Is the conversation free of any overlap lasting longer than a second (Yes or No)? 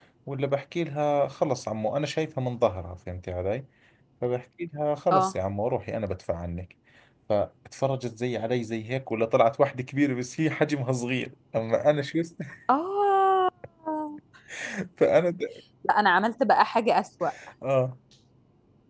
Yes